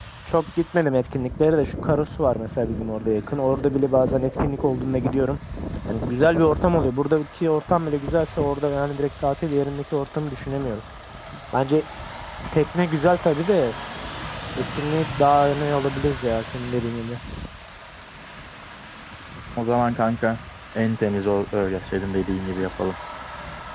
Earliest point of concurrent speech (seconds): none

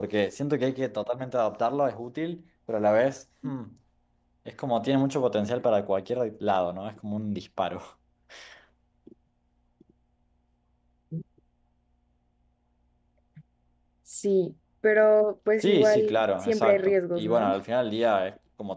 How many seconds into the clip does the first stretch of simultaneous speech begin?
15.6 s

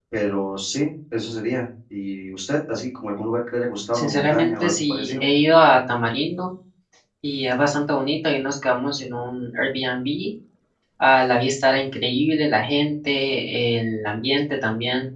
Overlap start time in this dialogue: 3.9 s

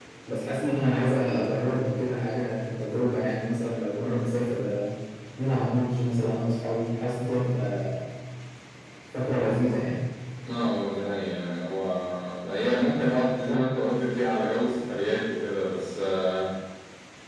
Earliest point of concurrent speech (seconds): none

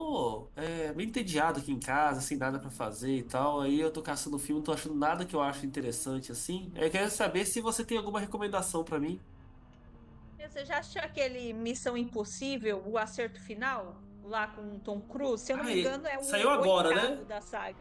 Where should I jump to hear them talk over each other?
15.5 s

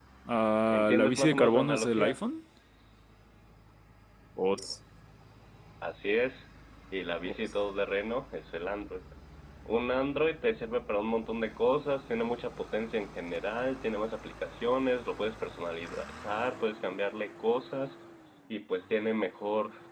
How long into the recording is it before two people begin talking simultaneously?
0.8 s

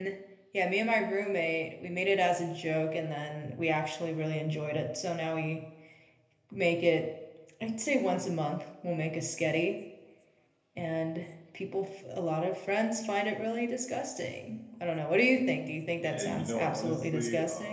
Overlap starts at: 16.0 s

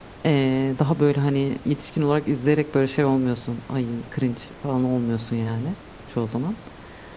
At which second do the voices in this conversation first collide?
none

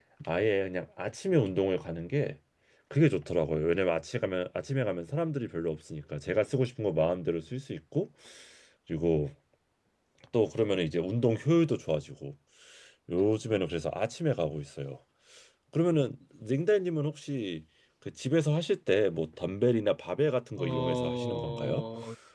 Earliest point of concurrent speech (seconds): 20.6 s

